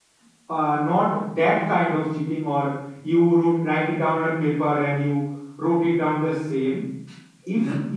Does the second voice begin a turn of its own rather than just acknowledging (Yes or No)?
No